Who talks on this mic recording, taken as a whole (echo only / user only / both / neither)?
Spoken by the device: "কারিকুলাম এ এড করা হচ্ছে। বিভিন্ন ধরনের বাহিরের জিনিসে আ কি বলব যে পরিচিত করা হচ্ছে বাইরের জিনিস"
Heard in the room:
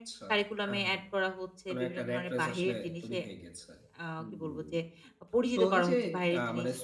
both